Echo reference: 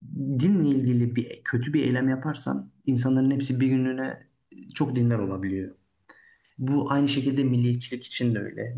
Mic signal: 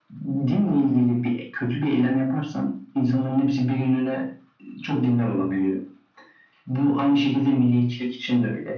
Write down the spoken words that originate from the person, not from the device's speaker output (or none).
none